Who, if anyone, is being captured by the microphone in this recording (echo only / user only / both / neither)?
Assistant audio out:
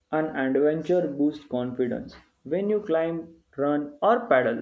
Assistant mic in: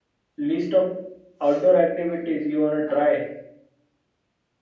user only